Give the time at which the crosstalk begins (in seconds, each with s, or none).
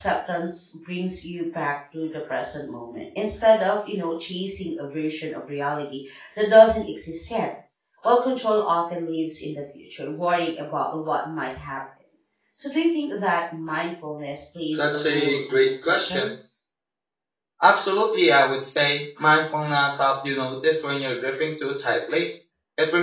14.8 s